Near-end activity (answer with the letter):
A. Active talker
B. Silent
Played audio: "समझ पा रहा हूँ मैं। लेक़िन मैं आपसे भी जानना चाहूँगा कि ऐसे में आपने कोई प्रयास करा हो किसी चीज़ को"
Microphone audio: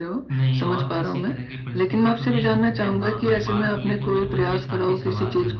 A